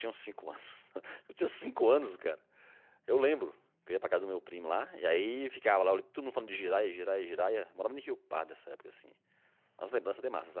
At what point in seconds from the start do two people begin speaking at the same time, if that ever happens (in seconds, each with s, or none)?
none